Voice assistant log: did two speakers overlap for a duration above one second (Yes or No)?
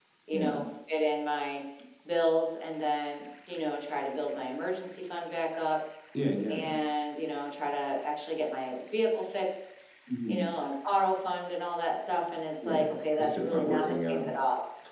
Yes